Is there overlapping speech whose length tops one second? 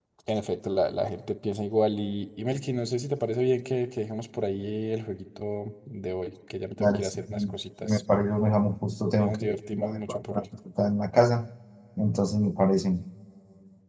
Yes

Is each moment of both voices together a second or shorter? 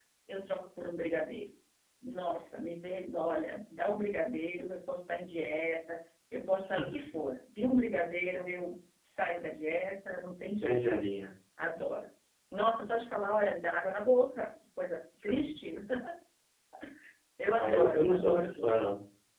No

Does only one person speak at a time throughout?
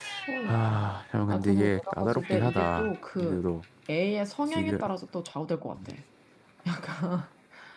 No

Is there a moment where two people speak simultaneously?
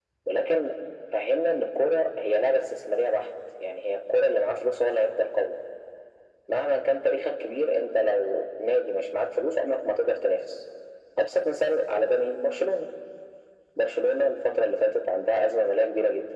No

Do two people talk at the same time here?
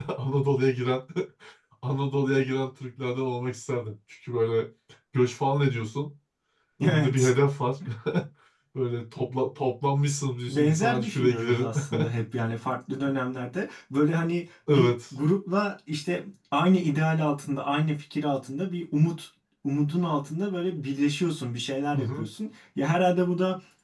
Yes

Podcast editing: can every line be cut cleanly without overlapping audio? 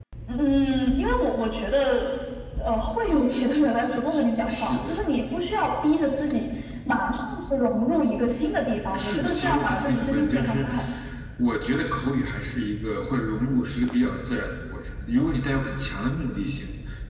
No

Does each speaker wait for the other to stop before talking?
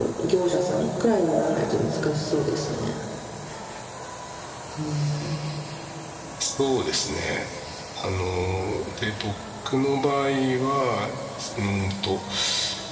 Yes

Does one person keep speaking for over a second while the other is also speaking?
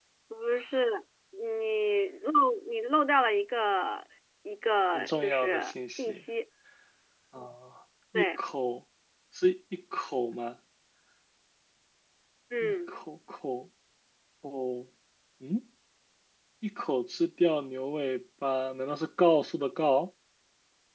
Yes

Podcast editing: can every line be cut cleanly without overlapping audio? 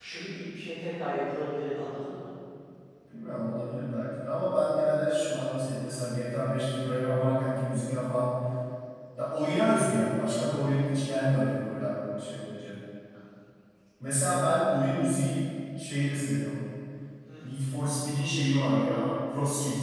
Yes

